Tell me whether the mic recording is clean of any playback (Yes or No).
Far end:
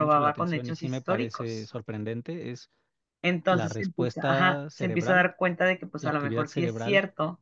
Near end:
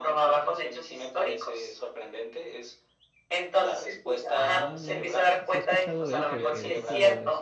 No